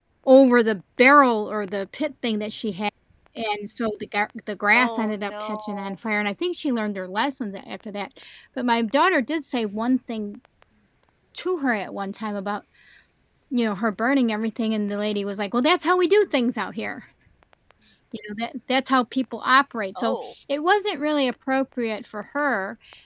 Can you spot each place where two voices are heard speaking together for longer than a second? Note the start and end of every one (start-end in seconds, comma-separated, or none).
4.7-6.0